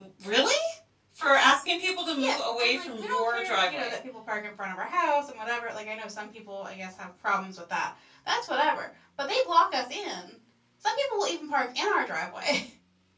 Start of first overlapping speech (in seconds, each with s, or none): 2.2 s